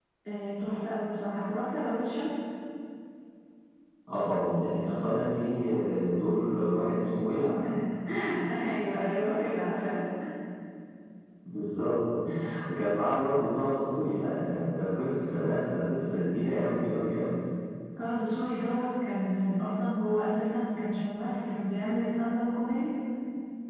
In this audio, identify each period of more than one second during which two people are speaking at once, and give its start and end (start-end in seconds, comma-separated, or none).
none